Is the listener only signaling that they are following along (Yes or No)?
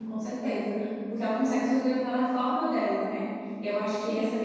Yes